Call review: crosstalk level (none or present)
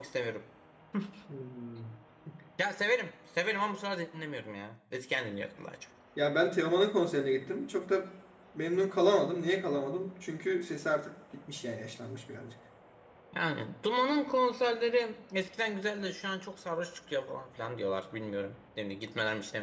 none